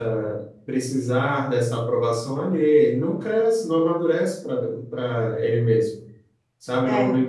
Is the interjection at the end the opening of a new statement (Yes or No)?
No